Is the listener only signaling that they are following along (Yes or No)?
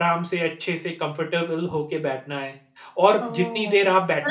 No